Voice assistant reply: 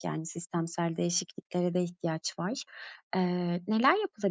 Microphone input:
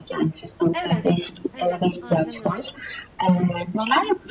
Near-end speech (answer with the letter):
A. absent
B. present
B